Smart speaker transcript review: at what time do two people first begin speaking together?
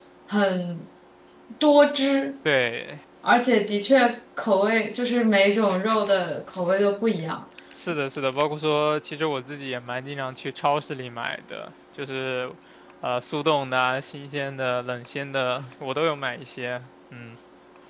none

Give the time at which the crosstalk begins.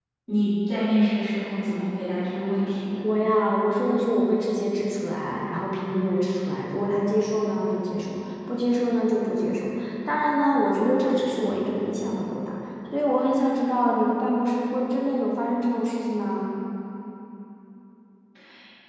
none

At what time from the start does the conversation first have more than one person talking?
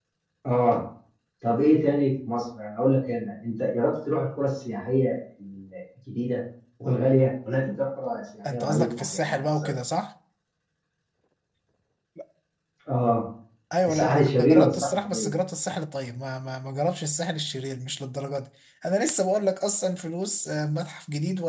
8.5 s

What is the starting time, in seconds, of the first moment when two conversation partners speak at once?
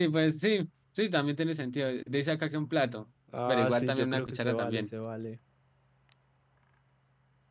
3.3 s

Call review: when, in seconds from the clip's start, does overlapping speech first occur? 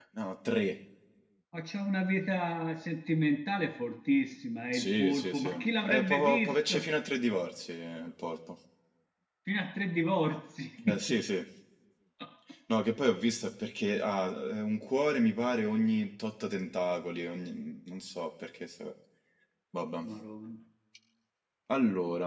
4.7 s

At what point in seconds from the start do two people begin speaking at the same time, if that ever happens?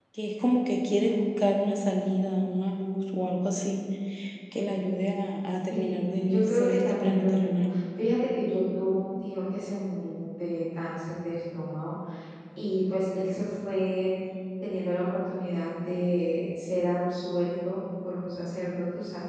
5.7 s

